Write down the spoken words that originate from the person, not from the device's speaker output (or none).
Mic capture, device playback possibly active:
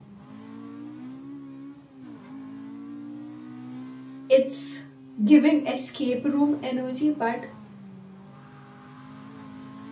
It's giving escape room energy but